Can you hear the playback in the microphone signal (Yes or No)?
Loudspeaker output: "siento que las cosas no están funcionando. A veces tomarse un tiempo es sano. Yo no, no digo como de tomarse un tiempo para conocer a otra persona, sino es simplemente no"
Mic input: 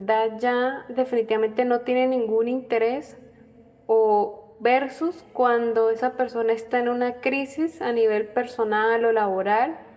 No